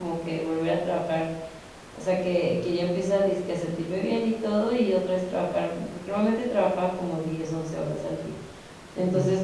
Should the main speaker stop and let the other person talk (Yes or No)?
No